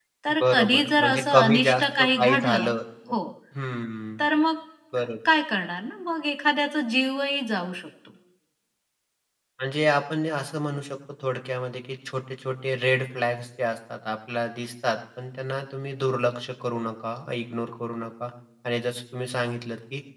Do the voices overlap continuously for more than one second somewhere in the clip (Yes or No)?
Yes